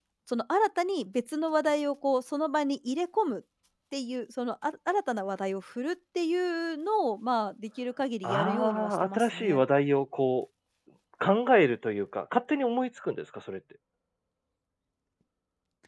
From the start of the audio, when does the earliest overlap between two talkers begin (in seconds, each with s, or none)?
8.2 s